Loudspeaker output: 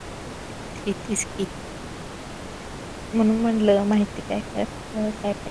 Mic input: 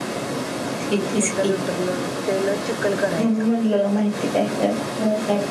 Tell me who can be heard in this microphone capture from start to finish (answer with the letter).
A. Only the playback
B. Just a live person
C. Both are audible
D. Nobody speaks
C